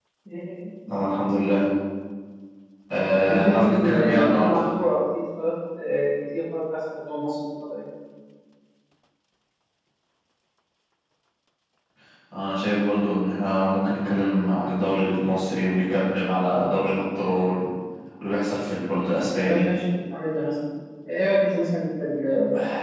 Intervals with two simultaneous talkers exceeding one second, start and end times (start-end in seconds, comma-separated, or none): 3.1-4.6